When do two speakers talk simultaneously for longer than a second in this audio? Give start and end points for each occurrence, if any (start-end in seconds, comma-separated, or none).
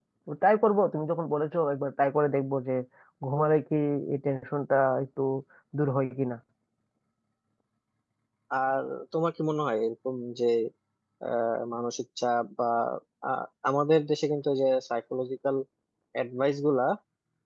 none